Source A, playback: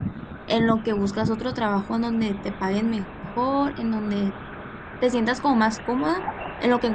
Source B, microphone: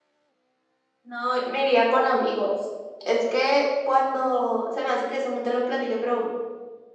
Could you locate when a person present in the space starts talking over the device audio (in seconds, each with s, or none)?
1.0 s